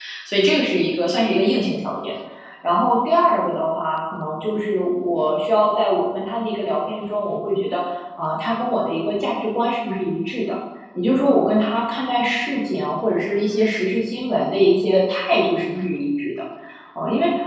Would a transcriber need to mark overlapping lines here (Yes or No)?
No